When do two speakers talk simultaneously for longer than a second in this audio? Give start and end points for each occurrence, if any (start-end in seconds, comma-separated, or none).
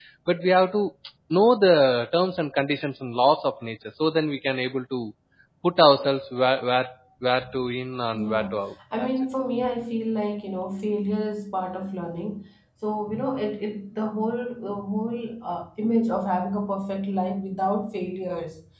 none